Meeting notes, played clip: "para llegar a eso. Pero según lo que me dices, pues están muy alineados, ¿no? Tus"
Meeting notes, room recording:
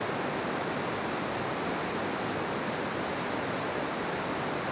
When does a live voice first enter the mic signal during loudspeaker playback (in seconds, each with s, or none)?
none